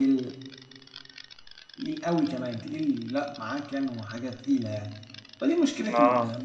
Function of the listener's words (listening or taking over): listening